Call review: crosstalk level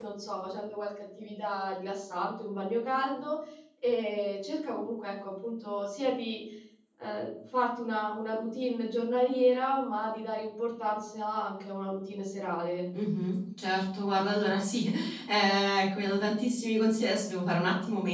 none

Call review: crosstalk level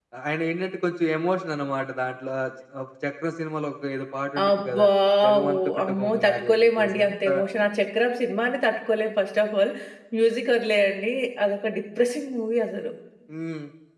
present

